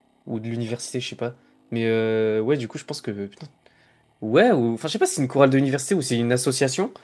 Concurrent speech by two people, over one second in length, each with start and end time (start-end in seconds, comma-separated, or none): none